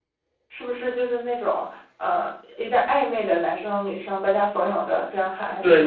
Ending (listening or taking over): taking over